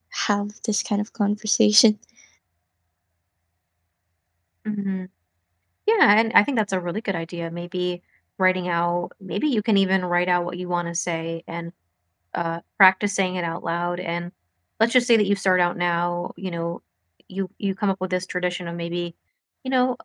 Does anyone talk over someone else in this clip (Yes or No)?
No